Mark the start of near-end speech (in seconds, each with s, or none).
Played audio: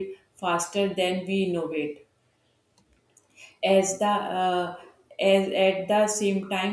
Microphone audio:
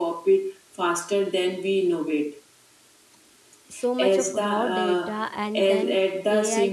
3.7 s